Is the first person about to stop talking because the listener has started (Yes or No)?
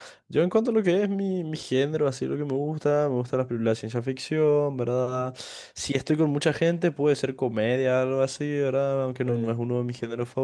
No